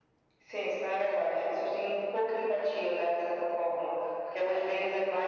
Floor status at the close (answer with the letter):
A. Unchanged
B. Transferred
A